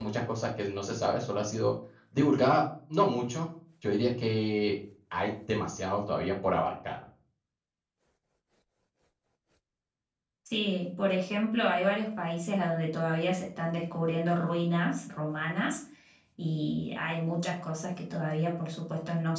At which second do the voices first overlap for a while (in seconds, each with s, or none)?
none